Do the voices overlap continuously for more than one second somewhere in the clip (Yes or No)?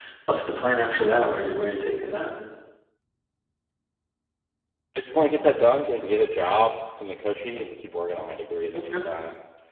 No